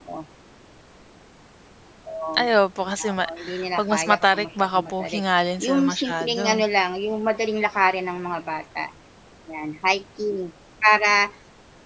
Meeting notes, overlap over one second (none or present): present